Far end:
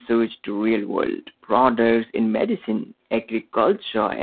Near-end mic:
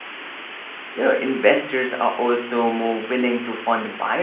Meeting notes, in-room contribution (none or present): present